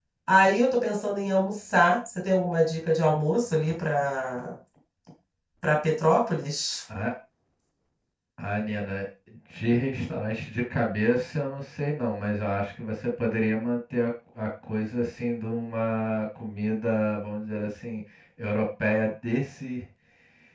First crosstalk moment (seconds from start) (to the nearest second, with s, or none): none